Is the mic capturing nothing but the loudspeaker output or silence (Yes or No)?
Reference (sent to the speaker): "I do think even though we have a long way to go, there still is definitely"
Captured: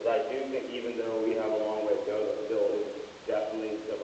Yes